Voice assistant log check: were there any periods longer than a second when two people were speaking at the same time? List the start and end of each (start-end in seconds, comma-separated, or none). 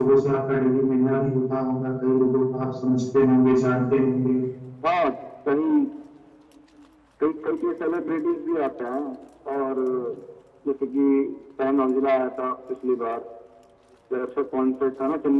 none